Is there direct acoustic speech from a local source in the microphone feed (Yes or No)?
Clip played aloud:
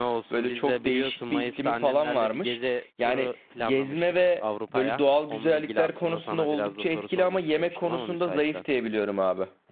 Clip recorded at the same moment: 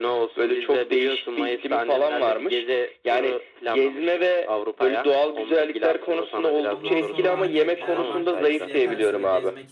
Yes